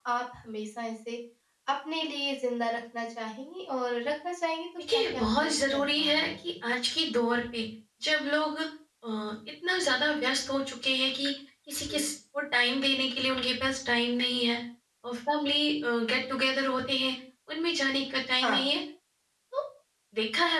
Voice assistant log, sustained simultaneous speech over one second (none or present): present